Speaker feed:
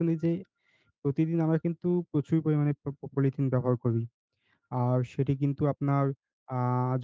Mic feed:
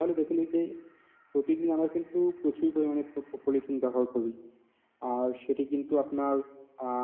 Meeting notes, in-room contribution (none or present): none